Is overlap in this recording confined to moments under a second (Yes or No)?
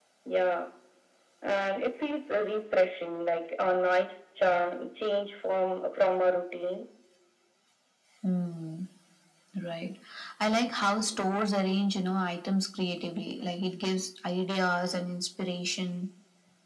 Yes